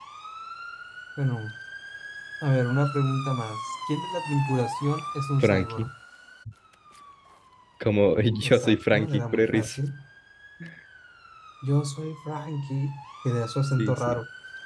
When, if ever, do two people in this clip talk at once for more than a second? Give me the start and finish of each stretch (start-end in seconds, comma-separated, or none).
8.4-9.8